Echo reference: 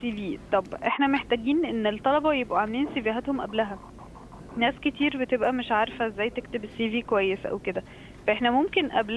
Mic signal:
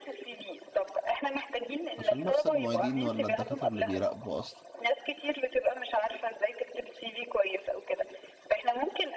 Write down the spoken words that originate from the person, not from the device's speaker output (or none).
عشان نفس المعيدين ولا الدكاترة اللي بيراقبوا أصلا